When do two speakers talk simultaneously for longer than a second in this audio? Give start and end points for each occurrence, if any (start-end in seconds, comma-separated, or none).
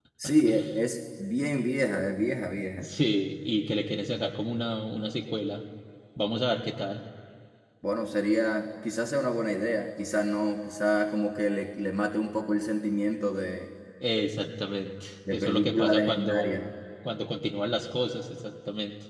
15.3-16.6